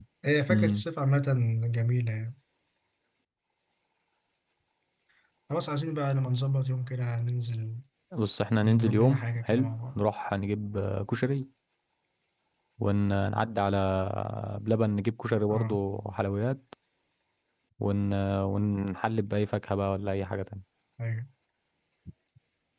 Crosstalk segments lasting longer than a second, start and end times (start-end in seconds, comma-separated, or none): 8.6-10.0